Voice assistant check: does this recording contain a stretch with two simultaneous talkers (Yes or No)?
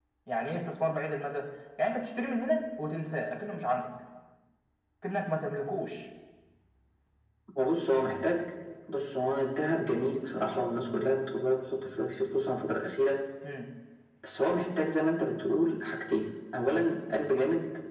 No